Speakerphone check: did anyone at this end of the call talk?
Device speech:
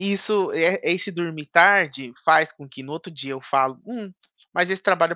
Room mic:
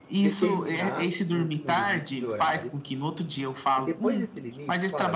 Yes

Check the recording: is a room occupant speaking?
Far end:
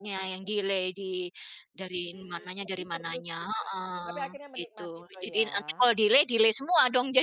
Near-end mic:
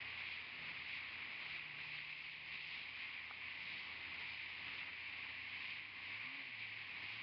No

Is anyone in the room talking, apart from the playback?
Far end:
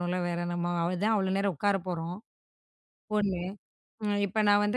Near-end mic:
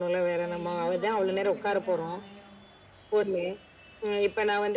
Yes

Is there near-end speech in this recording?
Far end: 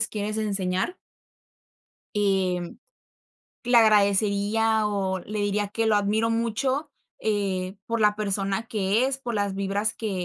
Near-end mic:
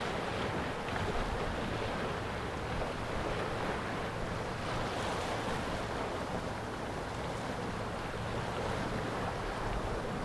No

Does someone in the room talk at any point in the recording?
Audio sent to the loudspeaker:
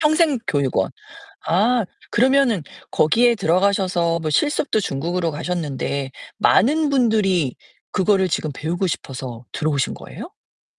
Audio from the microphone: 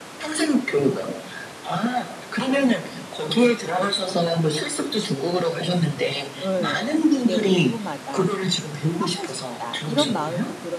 Yes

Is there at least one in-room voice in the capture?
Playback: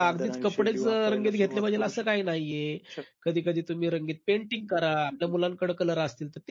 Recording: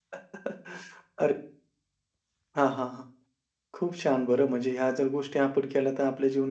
Yes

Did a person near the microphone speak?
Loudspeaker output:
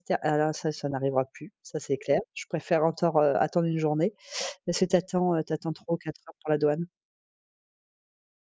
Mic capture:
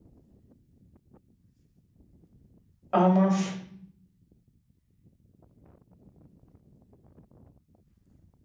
Yes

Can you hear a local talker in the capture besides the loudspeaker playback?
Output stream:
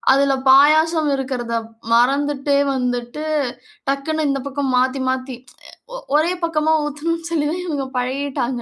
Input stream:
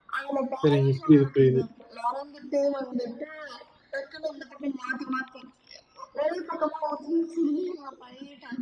Yes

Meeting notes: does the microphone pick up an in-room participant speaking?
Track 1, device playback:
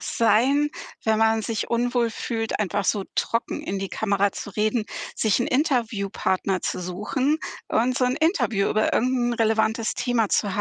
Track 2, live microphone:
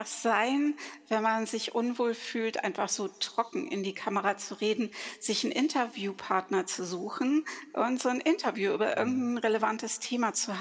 Yes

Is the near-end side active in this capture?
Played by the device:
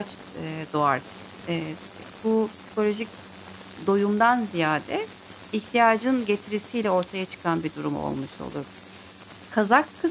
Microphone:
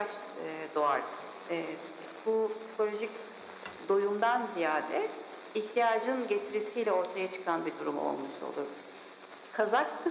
No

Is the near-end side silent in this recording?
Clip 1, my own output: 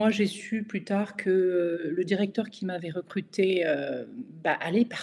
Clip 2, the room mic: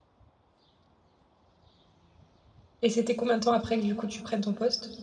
No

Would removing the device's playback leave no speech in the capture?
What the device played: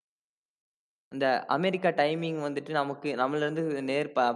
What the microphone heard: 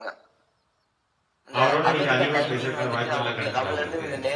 No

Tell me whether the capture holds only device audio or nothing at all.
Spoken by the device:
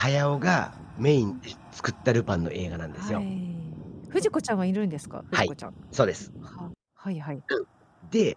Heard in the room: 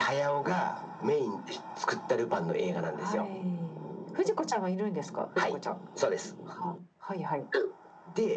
Yes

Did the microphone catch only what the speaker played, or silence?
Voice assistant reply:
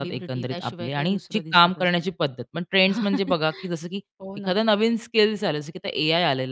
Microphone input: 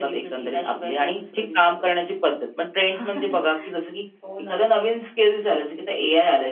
Yes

